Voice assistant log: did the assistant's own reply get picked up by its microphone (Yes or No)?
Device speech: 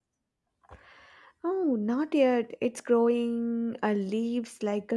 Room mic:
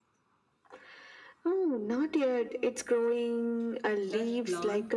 Yes